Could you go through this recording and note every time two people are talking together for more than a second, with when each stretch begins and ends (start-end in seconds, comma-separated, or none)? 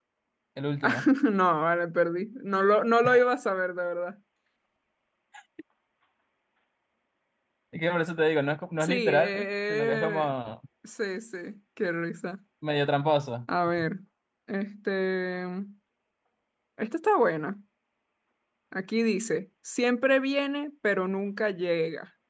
8.8-10.3